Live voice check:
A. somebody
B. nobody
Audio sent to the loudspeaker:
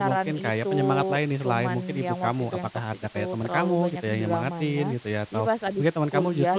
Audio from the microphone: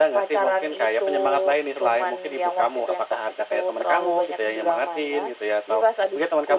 B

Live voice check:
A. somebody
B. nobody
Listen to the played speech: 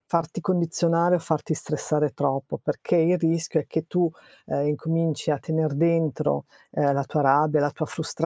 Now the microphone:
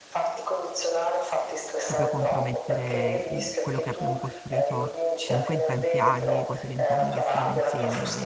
A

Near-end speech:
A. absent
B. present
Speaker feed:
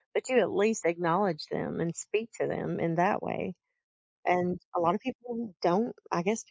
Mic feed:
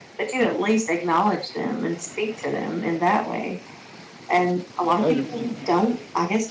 B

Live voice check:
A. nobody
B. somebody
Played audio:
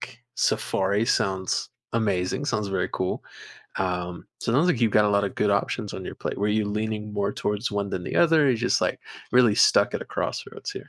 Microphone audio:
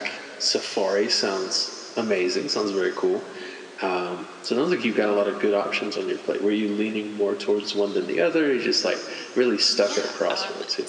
B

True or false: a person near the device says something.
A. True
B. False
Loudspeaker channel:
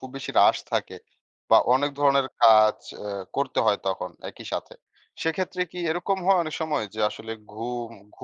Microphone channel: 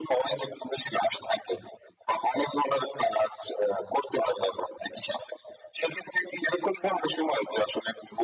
B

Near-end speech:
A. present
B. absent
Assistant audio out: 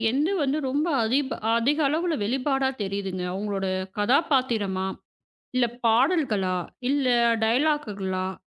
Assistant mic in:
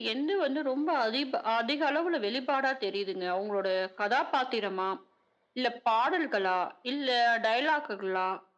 B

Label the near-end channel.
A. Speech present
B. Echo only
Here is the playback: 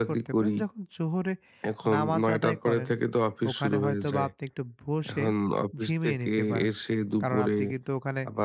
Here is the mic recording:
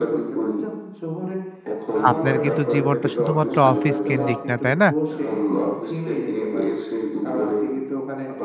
A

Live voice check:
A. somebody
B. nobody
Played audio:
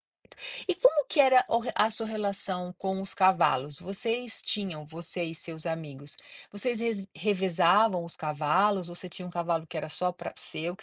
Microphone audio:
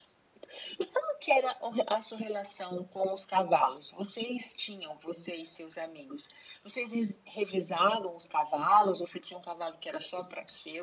B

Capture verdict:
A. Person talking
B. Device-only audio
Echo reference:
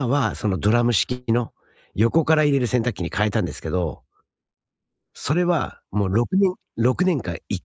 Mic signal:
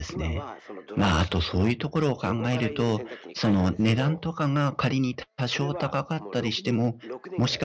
A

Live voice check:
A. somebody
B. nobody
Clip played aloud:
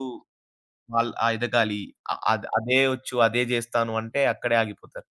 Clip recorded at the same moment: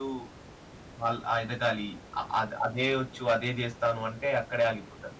B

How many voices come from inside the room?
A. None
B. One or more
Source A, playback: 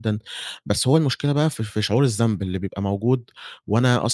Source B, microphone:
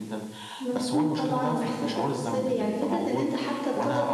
B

